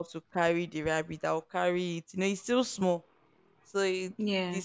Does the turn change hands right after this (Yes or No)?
No